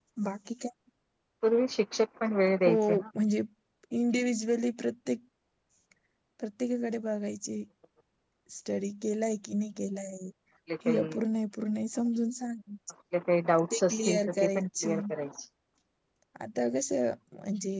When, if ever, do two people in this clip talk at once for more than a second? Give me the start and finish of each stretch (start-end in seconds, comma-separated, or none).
13.7-15.0